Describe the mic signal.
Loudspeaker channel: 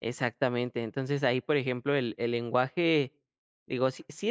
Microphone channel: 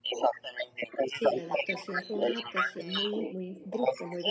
both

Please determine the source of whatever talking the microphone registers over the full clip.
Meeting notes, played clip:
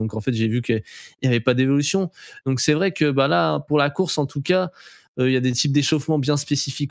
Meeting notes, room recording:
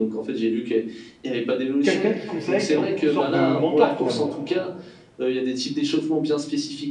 both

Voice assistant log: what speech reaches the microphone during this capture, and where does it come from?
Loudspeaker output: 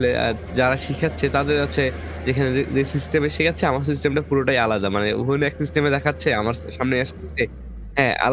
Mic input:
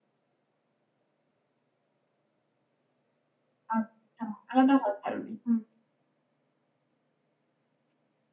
user only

